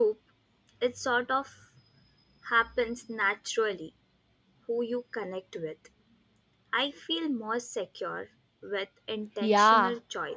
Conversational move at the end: taking over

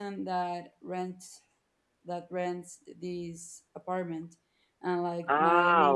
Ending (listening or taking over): taking over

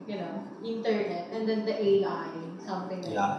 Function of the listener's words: taking over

